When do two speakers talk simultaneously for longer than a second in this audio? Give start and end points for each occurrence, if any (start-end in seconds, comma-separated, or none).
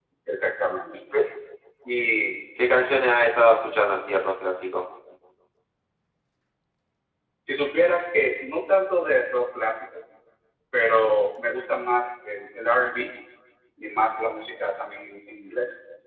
none